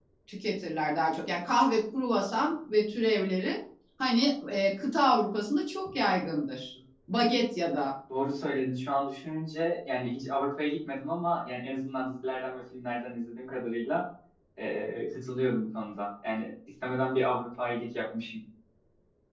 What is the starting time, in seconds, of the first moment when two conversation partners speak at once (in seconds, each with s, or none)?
none